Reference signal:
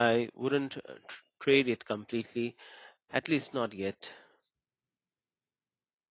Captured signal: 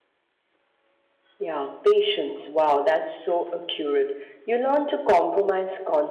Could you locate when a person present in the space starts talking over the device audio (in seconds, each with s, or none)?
1.4 s